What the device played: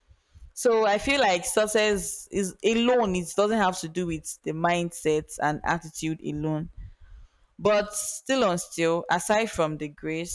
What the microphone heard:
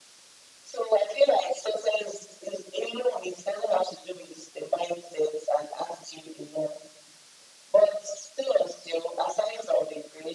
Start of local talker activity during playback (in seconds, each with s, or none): none